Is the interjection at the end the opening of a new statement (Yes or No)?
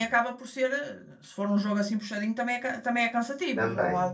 Yes